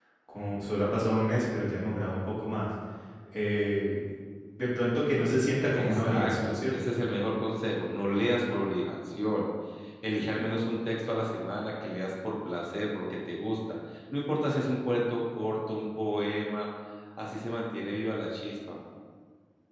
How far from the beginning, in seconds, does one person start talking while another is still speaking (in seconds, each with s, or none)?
5.7 s